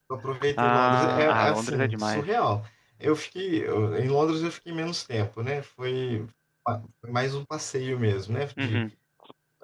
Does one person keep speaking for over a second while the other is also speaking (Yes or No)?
Yes